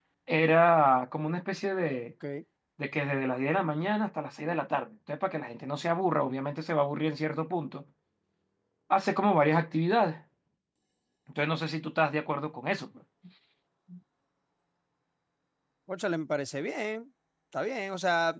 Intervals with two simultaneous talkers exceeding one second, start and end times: none

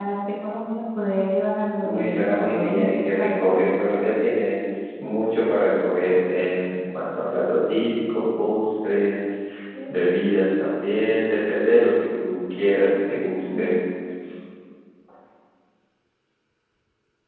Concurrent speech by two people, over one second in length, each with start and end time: 1.8-3.4

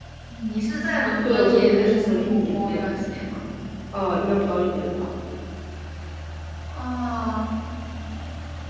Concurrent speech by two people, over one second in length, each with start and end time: 1.2-3.1

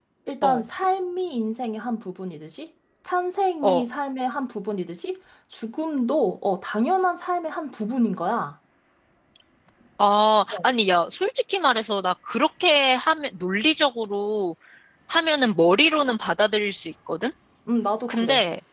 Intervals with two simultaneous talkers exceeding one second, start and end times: none

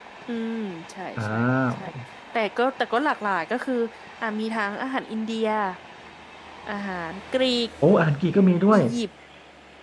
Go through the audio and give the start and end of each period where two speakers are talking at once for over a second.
none

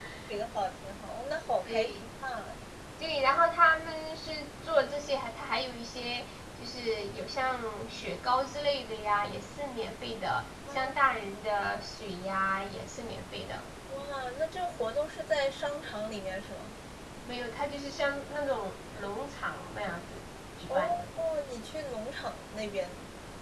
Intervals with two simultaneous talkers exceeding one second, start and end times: none

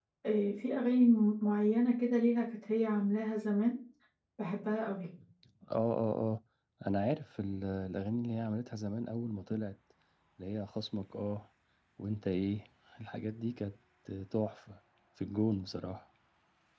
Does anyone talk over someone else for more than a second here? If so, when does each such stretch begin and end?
none

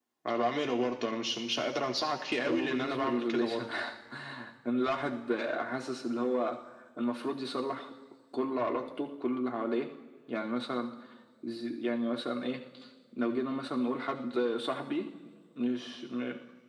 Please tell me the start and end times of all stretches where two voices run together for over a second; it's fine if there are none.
2.4-3.6

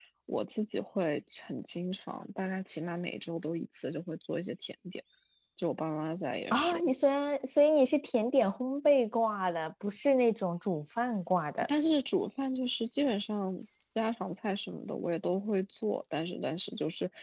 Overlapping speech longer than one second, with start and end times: none

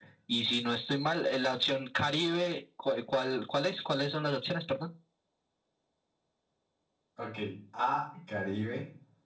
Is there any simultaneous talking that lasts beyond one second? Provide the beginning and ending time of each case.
none

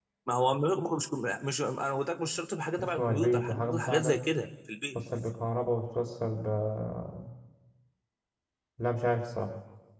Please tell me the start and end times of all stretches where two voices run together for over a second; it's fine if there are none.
2.8-4.2

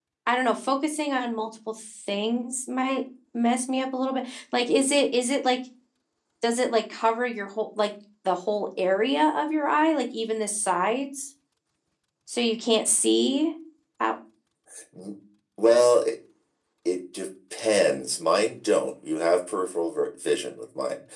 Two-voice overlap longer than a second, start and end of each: none

